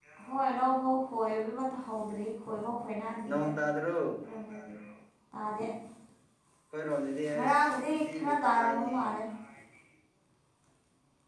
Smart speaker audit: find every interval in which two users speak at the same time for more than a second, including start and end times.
7.3-9.1

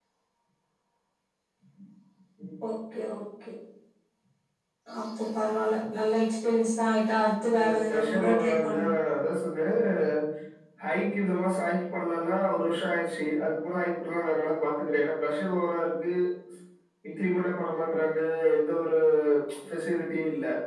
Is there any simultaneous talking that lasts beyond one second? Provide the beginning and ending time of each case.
7.6-8.9

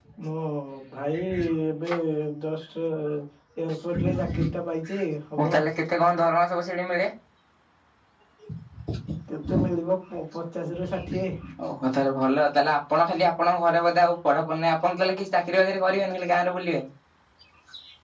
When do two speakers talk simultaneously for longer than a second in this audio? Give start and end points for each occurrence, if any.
none

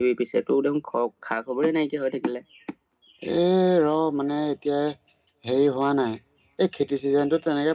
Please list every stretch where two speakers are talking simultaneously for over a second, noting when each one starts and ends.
none

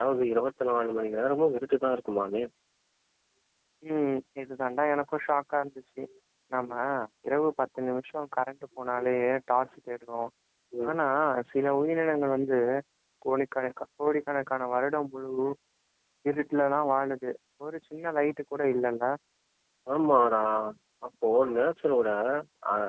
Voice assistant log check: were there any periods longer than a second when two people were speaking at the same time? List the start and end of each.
none

